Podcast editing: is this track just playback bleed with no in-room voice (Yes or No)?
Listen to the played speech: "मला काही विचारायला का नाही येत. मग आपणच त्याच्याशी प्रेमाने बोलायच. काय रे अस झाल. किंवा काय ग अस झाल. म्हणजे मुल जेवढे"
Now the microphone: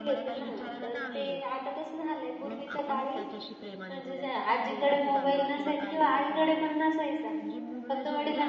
No